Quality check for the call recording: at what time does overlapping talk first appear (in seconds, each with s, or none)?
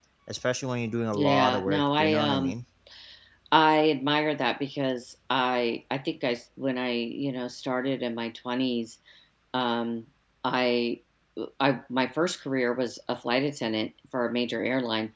1.1 s